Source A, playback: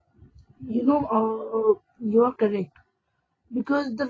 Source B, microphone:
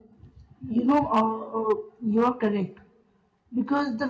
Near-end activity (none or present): none